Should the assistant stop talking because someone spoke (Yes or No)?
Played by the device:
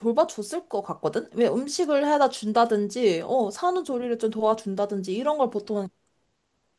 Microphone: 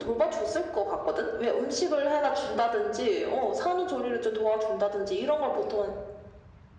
No